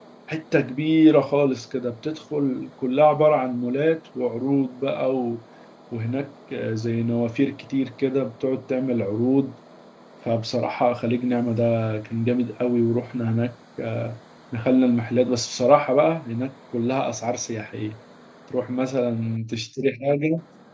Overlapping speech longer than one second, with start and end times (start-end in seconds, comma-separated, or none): none